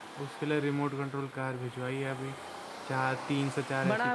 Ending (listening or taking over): taking over